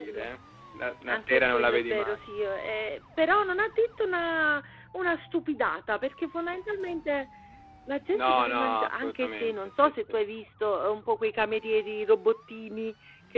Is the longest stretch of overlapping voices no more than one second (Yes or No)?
No